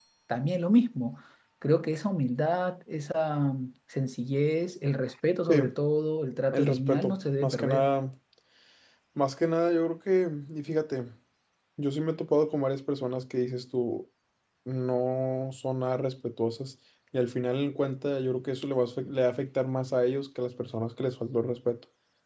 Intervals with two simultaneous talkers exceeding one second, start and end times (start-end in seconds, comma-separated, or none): 6.5-7.9